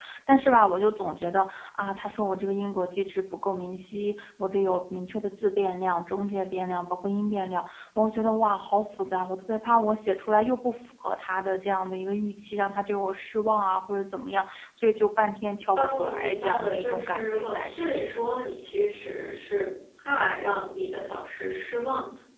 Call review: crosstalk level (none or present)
present